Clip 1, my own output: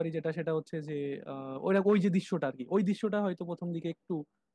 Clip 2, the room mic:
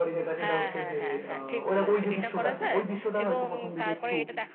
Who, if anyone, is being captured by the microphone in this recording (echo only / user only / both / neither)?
both